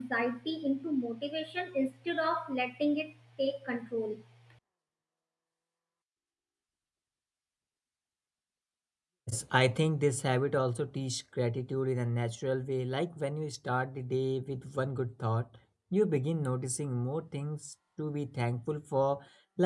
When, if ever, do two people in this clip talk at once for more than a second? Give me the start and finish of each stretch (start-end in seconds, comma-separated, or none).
none